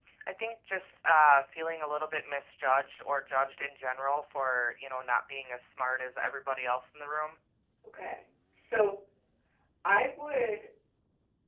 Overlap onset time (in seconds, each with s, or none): none